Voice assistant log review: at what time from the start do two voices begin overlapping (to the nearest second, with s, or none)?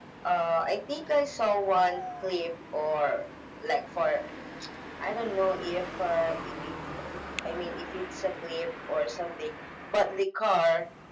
none